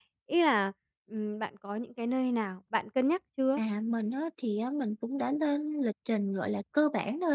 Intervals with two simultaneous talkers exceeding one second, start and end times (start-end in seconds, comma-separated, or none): none